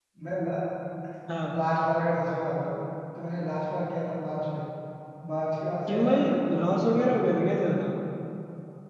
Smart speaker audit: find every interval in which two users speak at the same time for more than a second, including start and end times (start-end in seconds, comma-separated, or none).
5.9-7.3